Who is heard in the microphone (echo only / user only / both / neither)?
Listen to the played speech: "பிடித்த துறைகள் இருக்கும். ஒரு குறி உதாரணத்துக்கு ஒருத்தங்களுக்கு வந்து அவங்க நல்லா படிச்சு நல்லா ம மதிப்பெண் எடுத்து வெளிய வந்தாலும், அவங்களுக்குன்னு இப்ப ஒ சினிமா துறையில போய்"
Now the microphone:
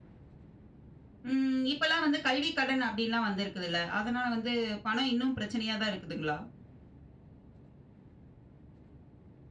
user only